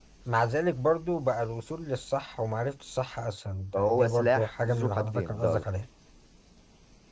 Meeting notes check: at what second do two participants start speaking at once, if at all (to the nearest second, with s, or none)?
4 s